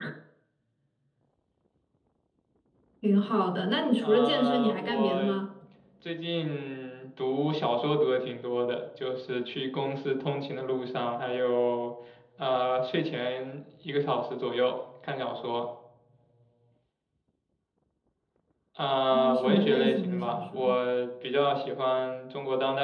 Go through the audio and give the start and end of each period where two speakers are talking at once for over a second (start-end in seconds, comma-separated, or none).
4.0-5.2, 19.1-20.8